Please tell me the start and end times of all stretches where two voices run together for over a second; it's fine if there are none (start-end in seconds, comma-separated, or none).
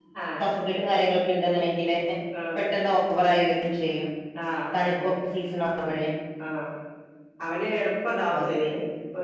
none